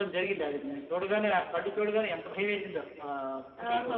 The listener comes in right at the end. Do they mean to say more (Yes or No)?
Yes